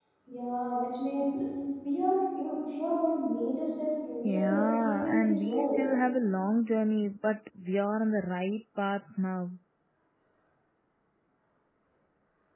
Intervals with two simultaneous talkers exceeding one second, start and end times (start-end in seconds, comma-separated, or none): 4.2-5.8